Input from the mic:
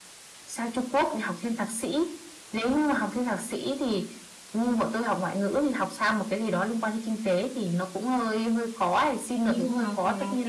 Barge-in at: 9.4 s

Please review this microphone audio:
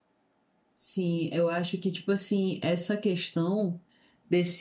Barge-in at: 0.7 s

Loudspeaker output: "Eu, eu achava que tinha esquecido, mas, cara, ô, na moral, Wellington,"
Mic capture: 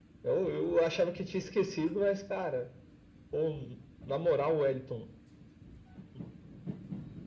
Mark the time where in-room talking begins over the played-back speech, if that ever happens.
none

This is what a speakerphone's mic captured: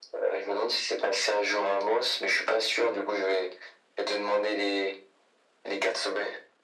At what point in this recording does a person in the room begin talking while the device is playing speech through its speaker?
none

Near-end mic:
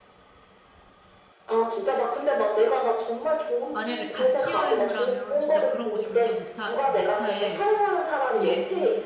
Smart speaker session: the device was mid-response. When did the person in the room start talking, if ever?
3.7 s

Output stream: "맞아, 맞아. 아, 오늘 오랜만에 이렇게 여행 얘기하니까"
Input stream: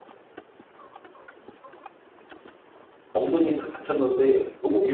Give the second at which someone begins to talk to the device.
3.1 s

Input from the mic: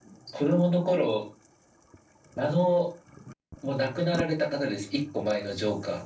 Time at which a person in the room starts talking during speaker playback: none

